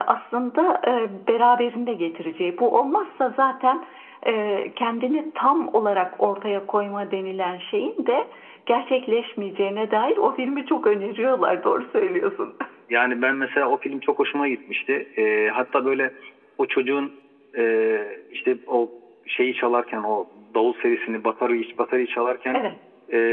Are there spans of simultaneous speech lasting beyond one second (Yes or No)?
No